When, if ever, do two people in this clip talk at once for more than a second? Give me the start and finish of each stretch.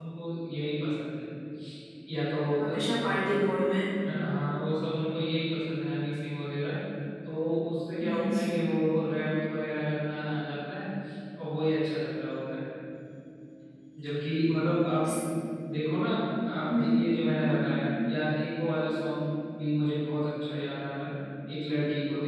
none

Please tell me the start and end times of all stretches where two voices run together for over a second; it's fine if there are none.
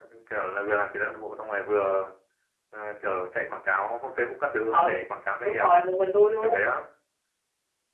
none

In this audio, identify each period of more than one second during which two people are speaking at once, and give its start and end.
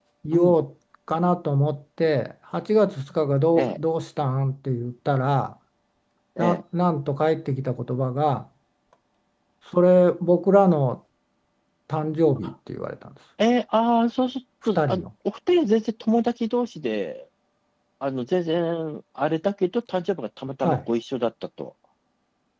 none

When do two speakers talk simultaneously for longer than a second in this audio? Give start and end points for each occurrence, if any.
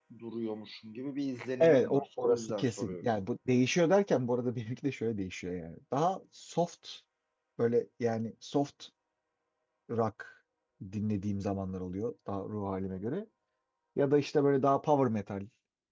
1.6-3.0

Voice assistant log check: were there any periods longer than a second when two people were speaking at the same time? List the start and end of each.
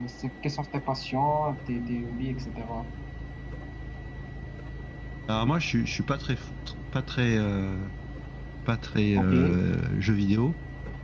none

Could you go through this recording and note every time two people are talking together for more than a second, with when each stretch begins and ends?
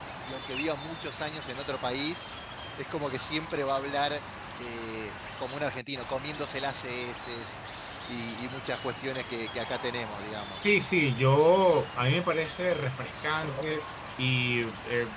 none

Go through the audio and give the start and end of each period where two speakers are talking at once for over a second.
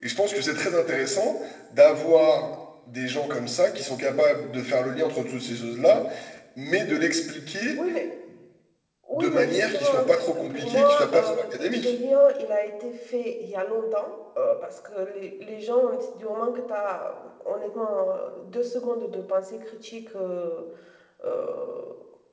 9.1-11.9

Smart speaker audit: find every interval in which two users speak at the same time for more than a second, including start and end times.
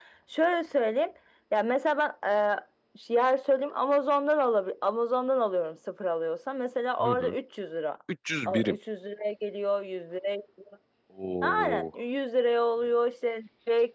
none

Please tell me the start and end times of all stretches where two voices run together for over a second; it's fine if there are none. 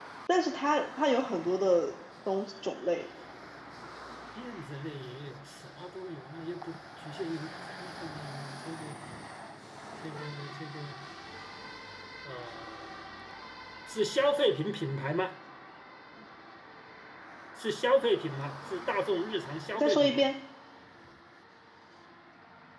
none

